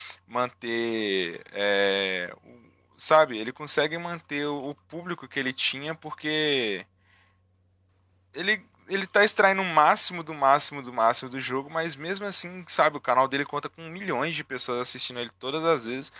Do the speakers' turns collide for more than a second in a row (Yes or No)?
No